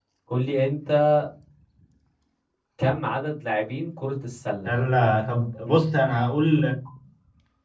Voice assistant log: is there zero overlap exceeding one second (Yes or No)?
Yes